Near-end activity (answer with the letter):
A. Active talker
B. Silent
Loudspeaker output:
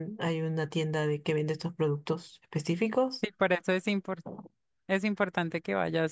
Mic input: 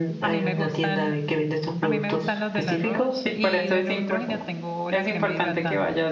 A